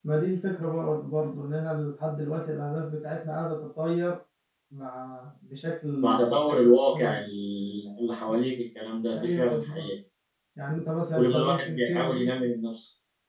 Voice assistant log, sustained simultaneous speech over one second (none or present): present